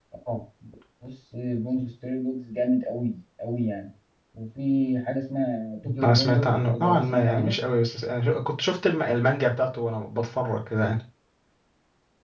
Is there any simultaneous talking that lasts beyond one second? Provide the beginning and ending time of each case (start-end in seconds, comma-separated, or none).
6.0-7.6